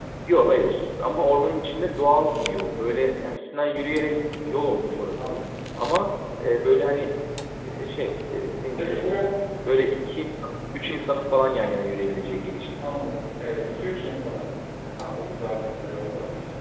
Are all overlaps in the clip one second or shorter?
Yes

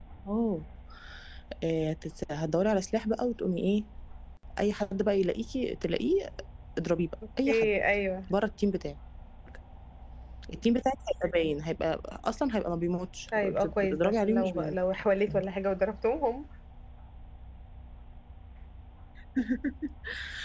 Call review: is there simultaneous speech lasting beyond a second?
Yes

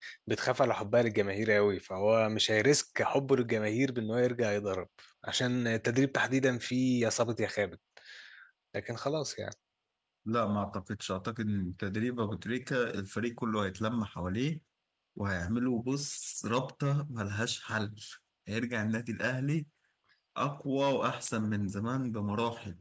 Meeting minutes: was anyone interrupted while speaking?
No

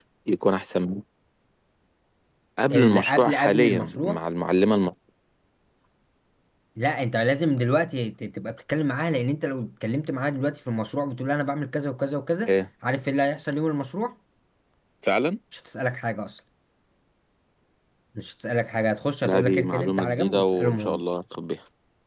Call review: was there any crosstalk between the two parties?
Yes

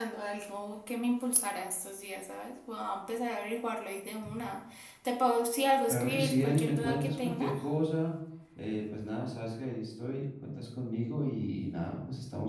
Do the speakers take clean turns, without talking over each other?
No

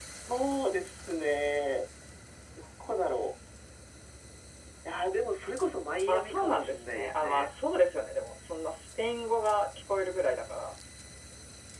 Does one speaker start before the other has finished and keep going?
Yes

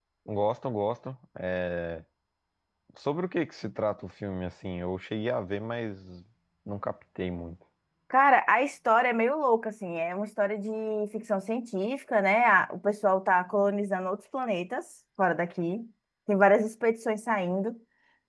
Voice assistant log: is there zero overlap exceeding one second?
Yes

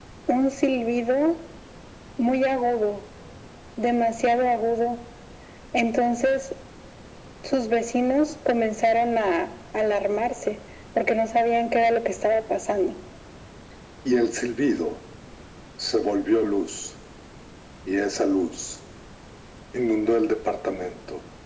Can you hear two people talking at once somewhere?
No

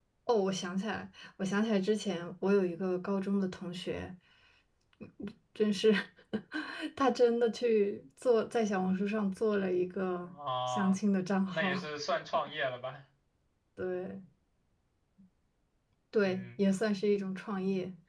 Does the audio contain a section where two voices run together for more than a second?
No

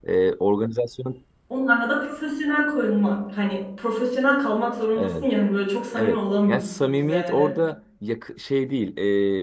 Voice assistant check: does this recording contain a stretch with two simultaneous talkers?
Yes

